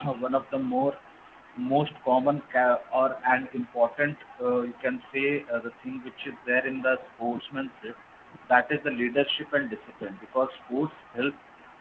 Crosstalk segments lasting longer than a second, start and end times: none

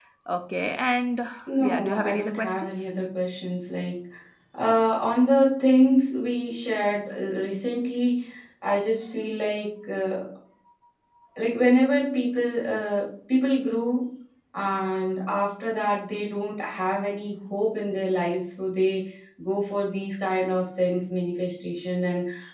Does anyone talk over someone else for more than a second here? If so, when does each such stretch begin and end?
1.6-2.9

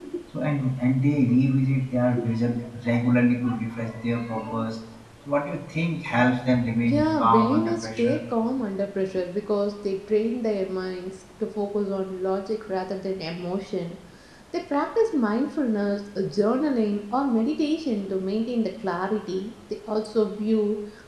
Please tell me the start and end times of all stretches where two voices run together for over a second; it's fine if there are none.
6.9-8.2

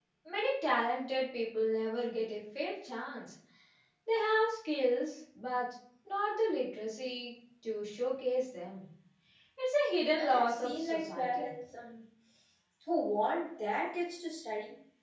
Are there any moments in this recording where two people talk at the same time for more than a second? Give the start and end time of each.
10.2-11.5

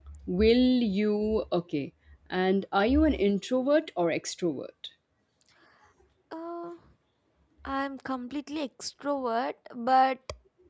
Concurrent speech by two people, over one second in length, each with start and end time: none

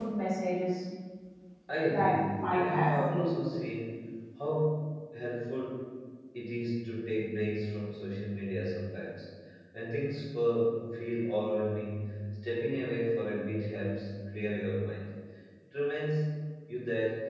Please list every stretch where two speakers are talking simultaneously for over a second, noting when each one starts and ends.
1.9-3.4

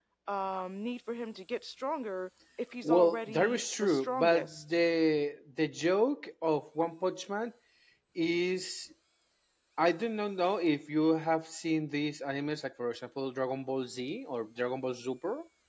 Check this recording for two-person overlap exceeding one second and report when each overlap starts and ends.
2.8-4.6

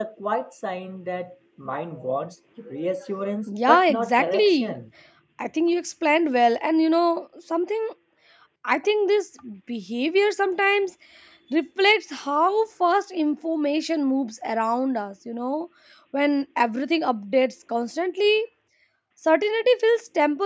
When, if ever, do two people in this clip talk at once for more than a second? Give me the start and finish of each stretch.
3.5-4.7

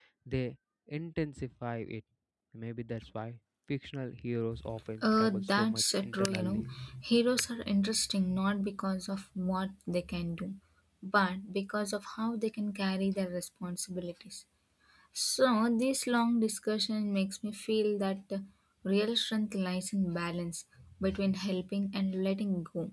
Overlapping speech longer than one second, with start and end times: 5.0-6.6

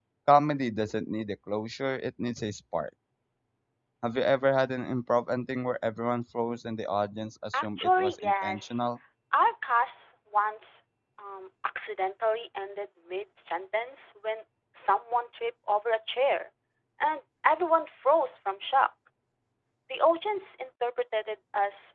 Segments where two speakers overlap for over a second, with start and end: 7.5-8.8

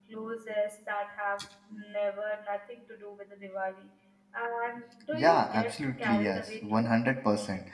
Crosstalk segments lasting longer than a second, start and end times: 5.1-6.9

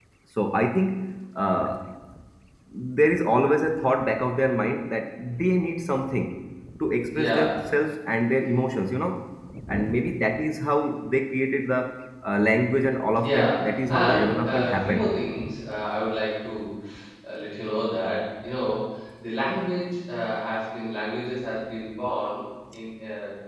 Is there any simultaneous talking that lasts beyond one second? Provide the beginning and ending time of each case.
13.2-15.1

